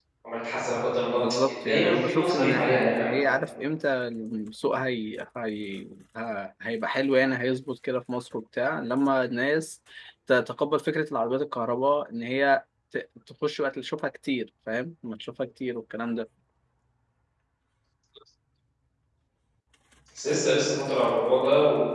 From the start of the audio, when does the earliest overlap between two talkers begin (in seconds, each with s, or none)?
1.6 s